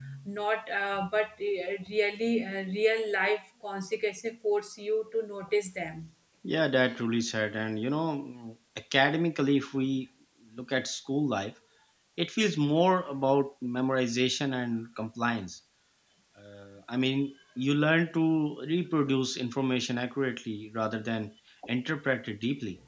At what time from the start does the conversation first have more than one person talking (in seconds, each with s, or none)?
none